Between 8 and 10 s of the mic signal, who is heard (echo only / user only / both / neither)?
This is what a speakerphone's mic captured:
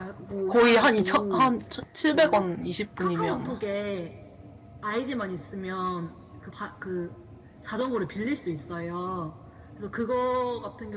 echo only